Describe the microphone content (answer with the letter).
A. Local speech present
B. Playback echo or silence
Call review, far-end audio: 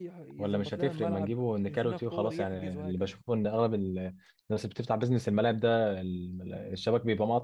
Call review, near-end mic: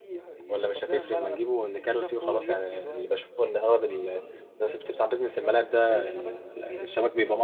A